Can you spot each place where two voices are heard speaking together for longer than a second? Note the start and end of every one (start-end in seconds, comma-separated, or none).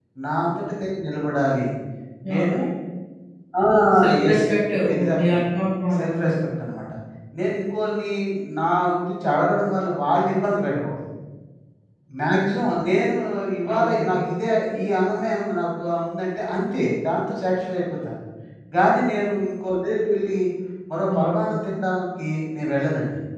none